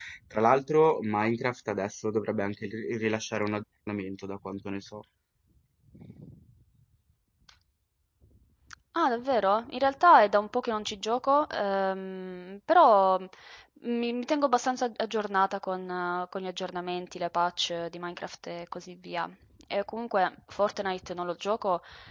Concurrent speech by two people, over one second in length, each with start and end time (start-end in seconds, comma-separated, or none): none